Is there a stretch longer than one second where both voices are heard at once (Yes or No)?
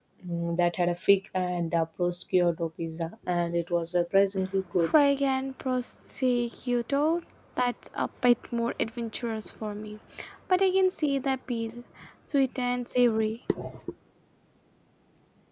No